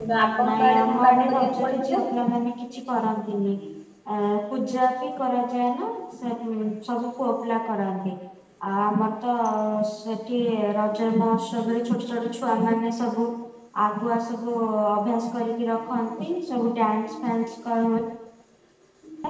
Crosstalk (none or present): present